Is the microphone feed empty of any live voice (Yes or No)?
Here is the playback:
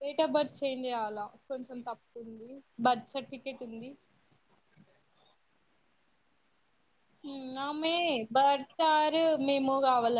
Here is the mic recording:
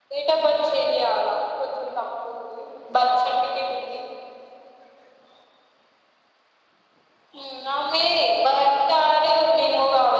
Yes